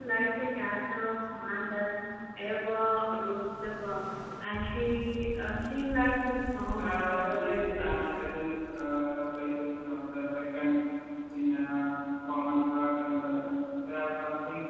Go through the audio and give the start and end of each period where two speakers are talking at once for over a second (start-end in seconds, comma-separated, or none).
6.7-8.1